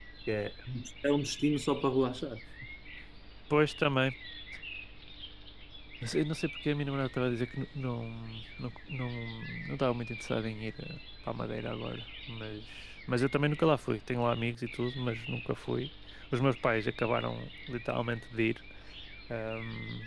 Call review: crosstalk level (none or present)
none